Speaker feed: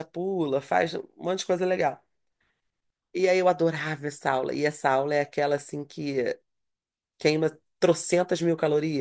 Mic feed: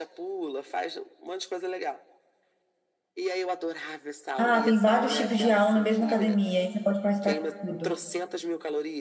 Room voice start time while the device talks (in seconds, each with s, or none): 4.4 s